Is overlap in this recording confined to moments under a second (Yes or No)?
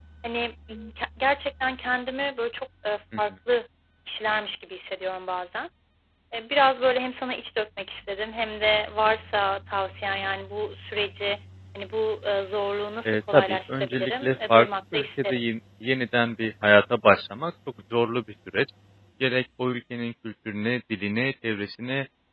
No